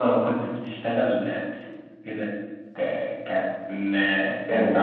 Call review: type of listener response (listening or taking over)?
listening